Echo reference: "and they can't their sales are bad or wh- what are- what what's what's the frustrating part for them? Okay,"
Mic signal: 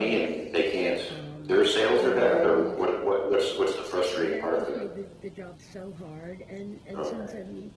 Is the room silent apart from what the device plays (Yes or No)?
No